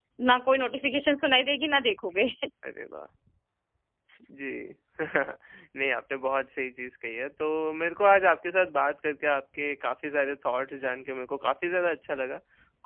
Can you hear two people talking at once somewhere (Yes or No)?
No